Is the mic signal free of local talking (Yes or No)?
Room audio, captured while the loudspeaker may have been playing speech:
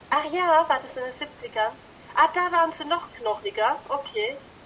Yes